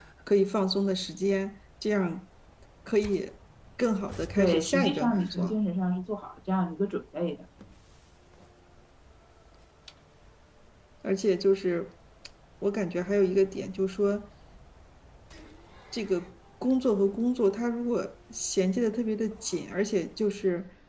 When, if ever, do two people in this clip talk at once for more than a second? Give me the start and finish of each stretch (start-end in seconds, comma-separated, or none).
4.4-5.6